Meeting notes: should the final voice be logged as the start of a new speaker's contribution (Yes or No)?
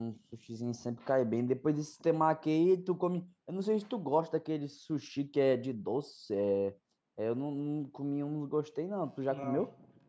Yes